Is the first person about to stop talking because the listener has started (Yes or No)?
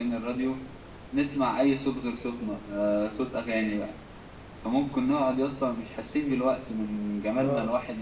No